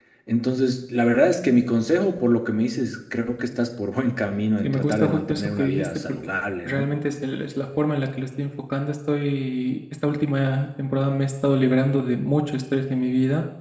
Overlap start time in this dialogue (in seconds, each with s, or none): 4.6 s